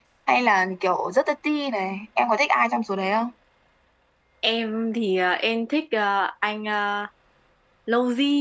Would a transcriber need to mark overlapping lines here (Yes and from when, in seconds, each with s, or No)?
No